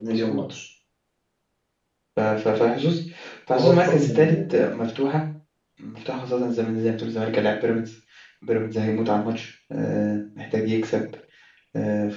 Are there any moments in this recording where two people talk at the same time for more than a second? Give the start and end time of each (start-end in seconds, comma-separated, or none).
3.5-4.8